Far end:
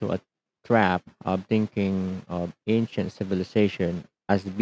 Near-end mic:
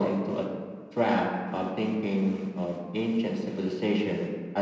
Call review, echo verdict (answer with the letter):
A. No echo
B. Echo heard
B